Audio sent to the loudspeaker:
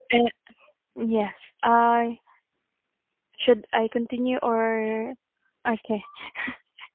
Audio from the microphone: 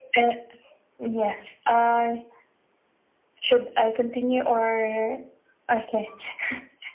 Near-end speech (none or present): none